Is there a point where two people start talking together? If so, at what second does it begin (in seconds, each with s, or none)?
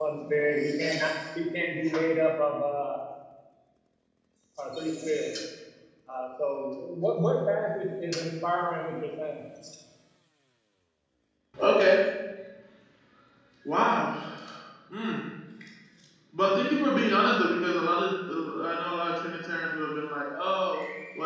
none